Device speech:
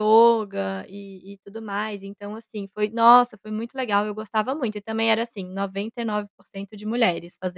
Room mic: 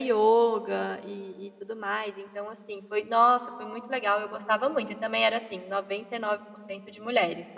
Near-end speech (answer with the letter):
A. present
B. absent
B